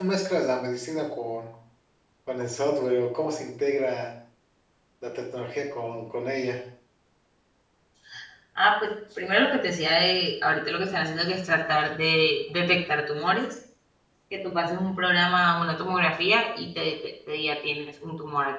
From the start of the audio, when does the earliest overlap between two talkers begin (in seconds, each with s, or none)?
none